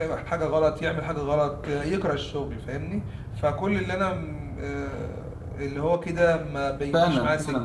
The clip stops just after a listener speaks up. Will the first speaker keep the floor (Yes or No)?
No